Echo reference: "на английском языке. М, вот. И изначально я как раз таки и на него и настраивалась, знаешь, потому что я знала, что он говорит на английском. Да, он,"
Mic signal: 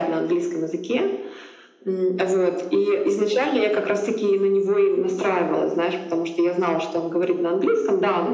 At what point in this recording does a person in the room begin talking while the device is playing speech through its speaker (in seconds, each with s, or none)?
none